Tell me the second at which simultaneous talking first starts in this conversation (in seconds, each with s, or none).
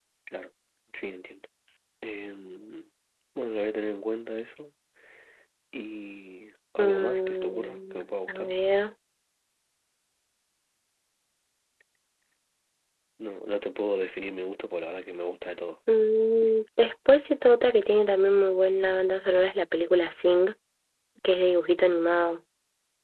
6.8 s